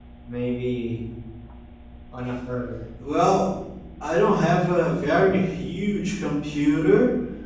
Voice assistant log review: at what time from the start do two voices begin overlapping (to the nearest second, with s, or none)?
none